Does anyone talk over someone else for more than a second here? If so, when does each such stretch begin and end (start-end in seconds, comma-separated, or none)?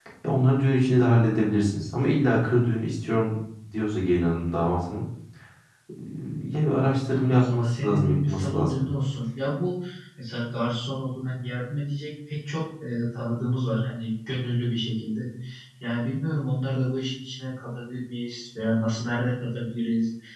7.1-8.8